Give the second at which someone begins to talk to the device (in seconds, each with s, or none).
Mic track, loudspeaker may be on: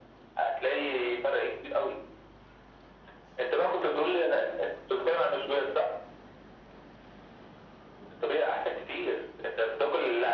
none